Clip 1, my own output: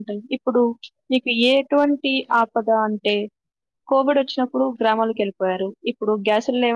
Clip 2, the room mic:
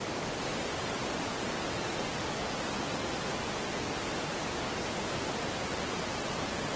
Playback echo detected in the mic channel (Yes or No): No